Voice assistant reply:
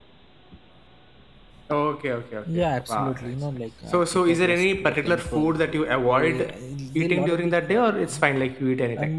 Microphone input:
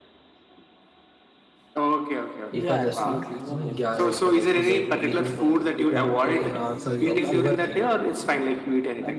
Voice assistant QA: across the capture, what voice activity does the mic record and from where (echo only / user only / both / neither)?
both